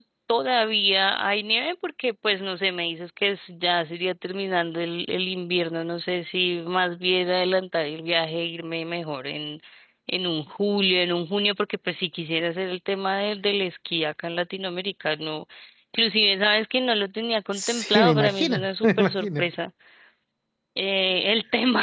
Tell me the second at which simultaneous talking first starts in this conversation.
17.6 s

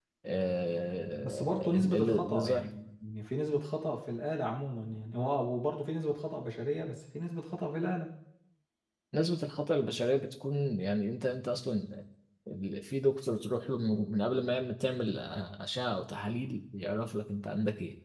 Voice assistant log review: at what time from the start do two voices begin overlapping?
1.2 s

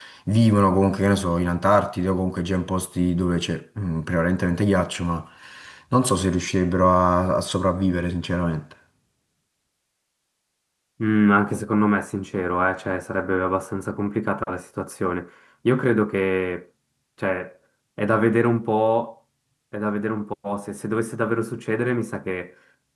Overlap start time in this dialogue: none

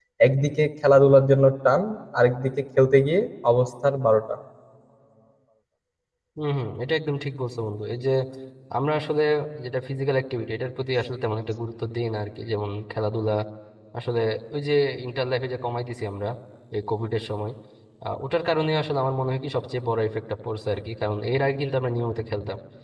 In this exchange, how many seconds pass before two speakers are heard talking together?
none

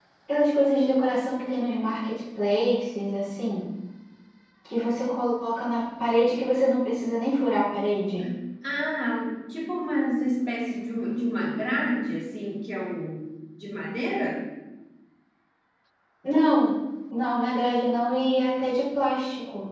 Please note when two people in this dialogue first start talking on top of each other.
none

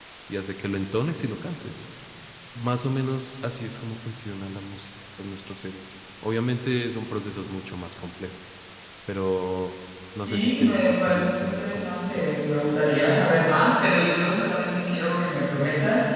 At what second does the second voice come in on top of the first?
10.2 s

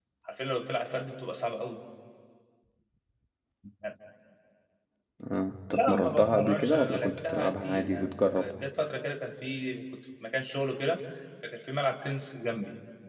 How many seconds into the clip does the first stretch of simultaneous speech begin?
5.7 s

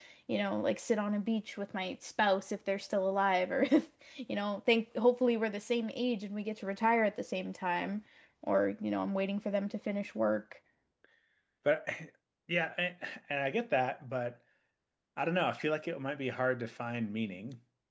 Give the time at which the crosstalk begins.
none

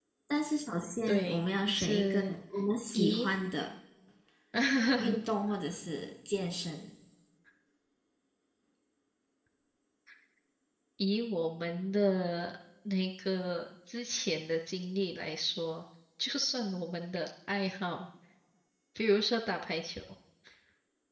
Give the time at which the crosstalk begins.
1.1 s

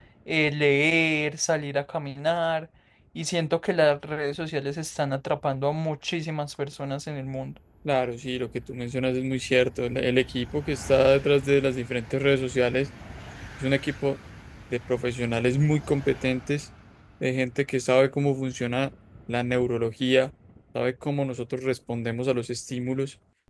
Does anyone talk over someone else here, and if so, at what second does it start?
none

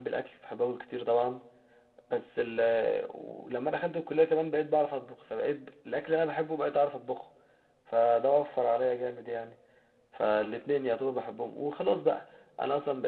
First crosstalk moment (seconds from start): none

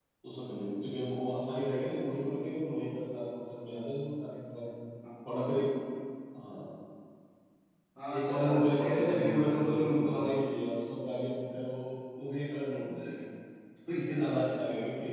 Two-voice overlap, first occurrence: 8.2 s

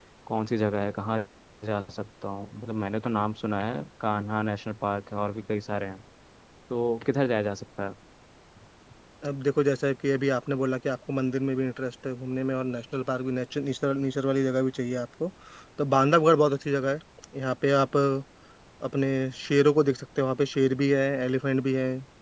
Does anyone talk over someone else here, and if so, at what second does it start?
none

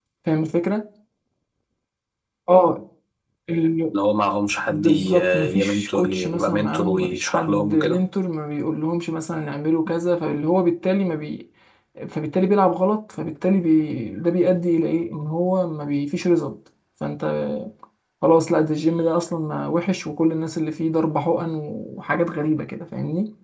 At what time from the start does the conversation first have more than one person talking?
4.7 s

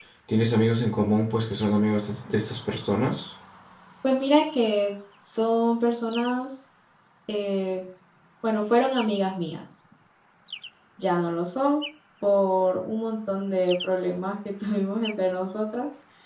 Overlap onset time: none

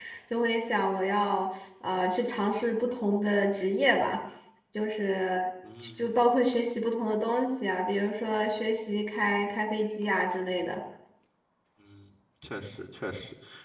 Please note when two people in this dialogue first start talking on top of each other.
none

